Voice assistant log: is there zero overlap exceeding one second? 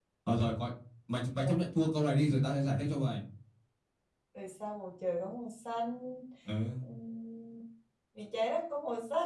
Yes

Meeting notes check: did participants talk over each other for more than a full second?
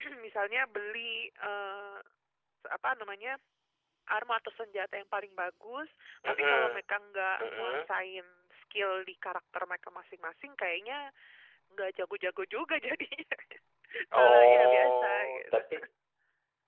Yes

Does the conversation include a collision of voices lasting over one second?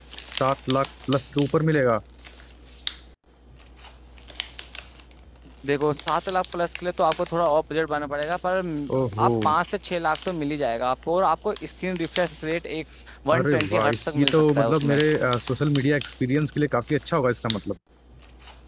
Yes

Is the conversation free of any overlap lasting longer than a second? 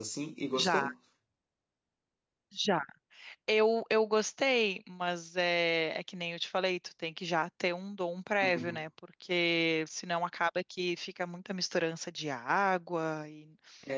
Yes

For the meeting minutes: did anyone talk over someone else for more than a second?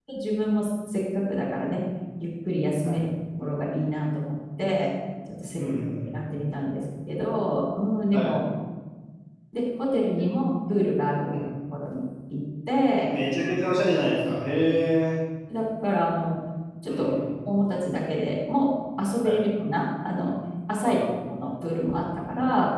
No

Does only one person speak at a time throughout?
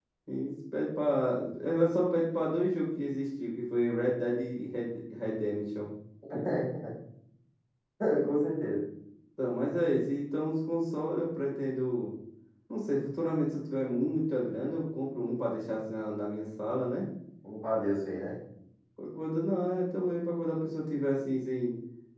Yes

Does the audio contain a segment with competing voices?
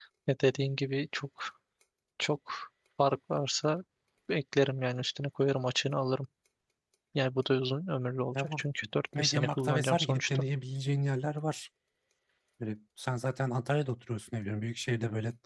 Yes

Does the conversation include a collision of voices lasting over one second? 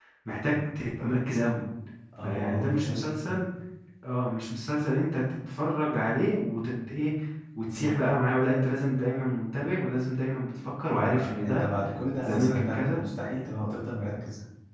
Yes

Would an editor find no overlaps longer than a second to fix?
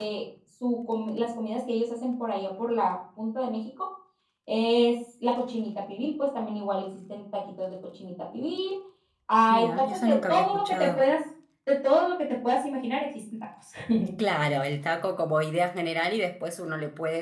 No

